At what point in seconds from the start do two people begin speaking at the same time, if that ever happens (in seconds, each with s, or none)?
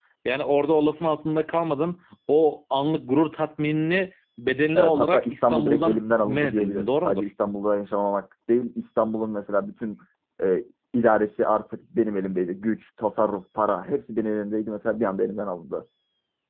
4.8 s